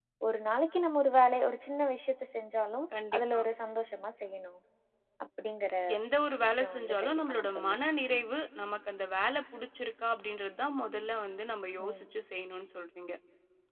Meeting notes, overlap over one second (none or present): present